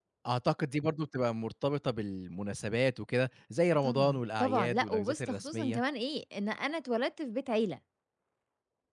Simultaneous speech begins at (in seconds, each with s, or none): 3.8 s